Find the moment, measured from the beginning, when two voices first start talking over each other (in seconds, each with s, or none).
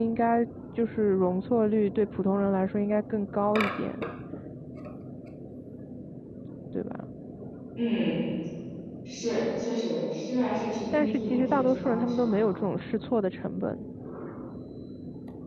10.9 s